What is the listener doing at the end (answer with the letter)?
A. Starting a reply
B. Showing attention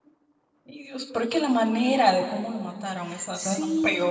A